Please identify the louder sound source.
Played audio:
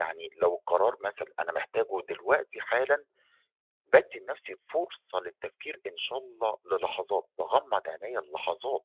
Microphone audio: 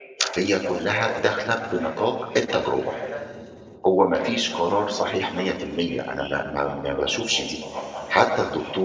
user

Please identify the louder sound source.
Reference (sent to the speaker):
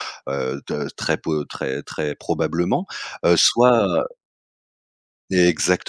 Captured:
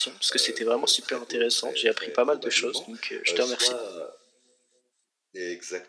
user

